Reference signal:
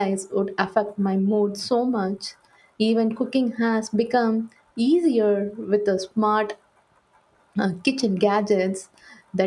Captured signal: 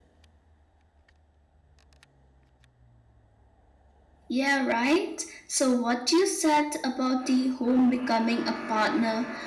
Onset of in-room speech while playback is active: 4.3 s

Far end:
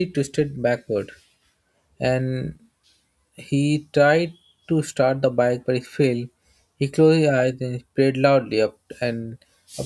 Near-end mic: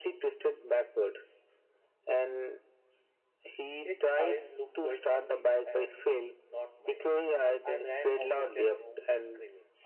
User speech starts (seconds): 3.8 s

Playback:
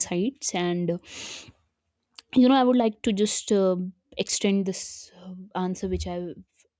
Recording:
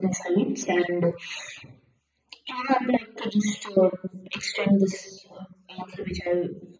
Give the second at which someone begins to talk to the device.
none

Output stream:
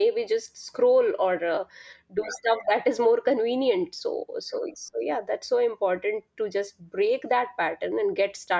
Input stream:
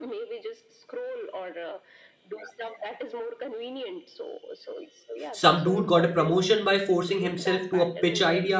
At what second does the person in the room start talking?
5.3 s

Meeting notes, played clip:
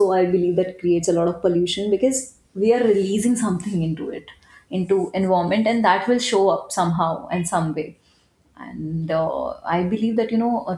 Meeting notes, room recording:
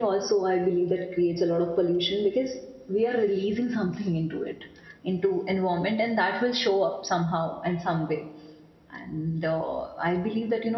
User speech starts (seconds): none

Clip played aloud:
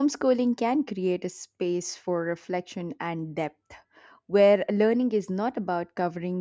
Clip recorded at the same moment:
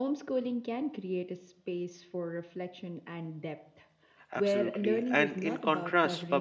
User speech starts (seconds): 4.3 s

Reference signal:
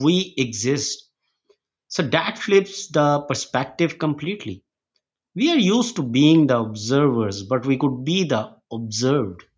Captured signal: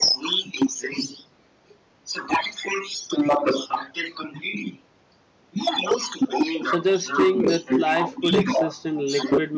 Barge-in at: 6.6 s

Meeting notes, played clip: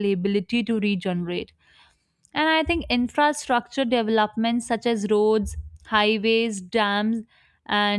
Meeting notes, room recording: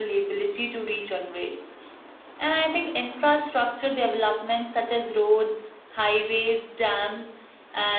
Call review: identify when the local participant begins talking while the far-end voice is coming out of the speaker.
none

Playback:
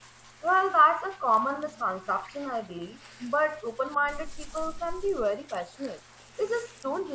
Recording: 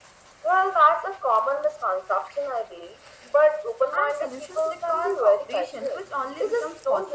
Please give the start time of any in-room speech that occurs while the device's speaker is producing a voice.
3.9 s

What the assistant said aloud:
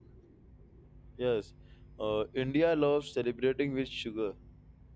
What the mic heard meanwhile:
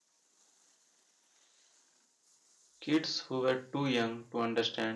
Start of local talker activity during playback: 2.8 s

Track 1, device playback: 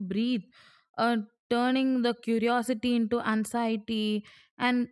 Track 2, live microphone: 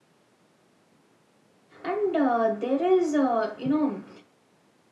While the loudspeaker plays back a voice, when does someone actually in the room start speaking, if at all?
1.8 s

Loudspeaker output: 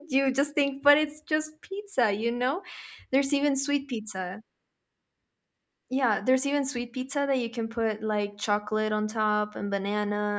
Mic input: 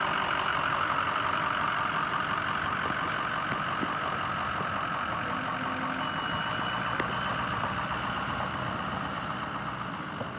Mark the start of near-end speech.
none

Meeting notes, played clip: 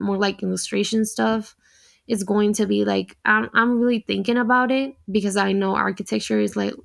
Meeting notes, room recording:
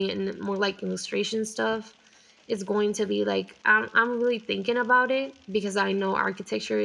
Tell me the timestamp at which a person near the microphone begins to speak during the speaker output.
none

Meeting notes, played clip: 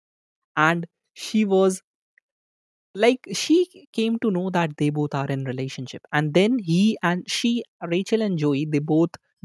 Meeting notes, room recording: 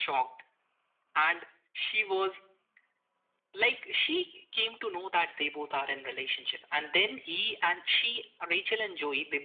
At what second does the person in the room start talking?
none

